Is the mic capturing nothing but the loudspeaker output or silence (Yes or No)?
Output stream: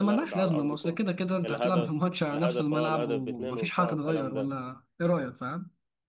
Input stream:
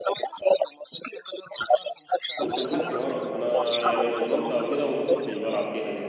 No